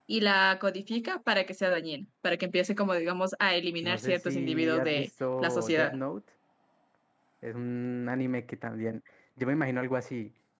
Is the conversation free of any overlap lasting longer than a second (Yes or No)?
No